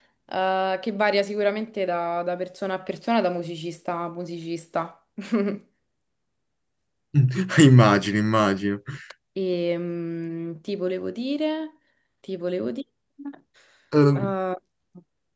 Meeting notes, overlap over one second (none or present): none